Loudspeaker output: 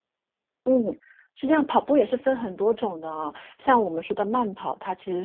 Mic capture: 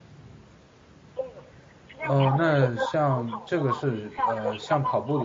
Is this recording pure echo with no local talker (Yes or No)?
No